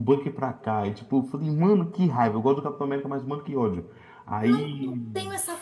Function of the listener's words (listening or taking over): taking over